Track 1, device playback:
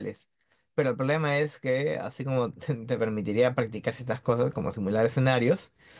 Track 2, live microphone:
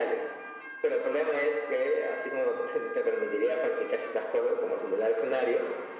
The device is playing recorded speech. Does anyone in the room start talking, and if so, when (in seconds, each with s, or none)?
none